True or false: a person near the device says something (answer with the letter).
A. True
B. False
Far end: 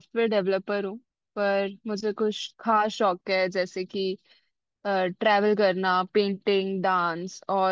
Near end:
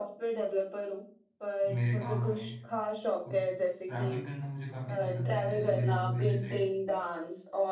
A